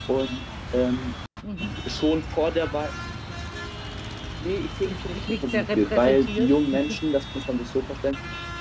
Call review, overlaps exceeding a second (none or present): present